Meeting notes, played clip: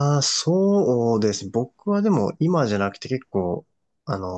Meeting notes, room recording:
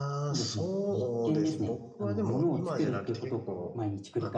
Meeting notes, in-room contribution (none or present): present